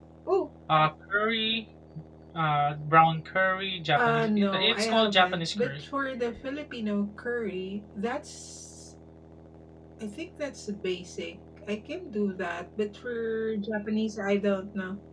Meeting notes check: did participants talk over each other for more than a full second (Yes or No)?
Yes